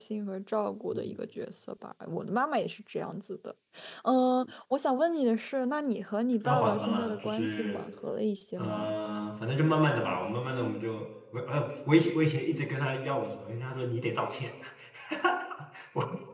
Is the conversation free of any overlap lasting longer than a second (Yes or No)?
No